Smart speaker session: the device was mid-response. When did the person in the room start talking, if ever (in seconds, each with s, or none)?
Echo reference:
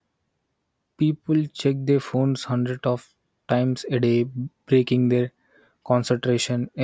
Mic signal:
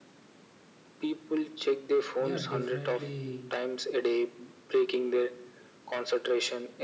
2.2 s